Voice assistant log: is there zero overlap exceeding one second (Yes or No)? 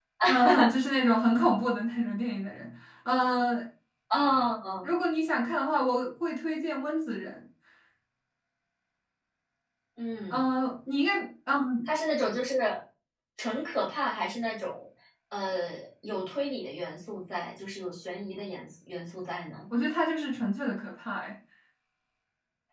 Yes